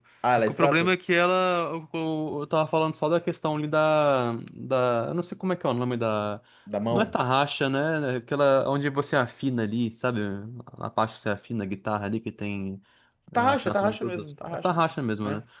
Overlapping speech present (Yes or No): Yes